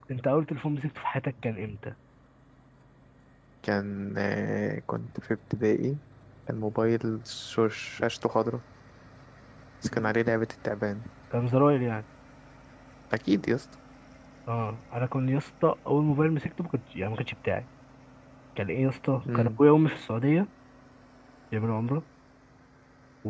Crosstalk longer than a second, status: none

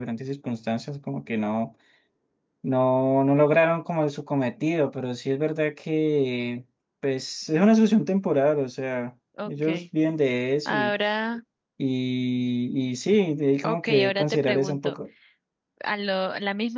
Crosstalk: present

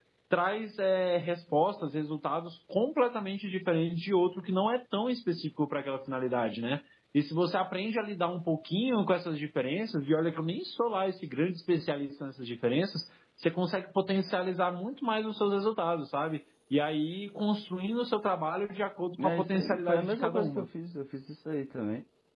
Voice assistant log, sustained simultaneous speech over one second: present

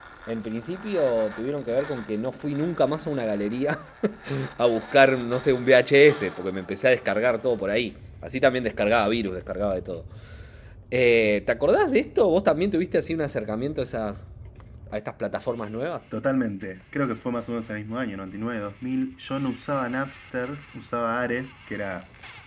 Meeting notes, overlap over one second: none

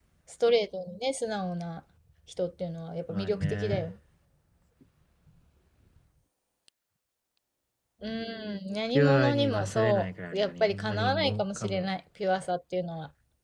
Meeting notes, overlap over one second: present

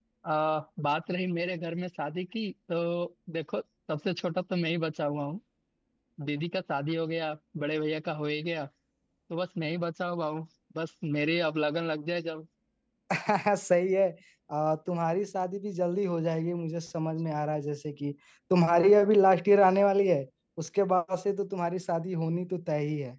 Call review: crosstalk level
none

